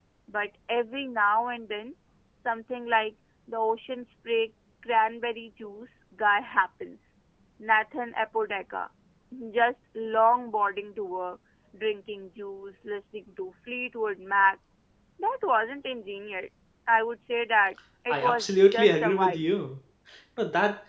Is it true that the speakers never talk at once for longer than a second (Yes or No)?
No